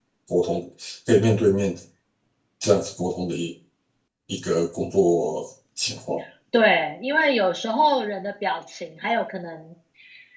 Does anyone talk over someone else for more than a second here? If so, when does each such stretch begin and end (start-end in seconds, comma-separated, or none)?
none